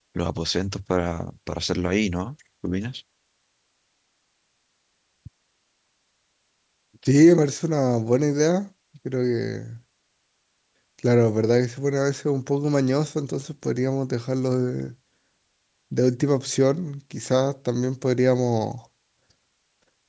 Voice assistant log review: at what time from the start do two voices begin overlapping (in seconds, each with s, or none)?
none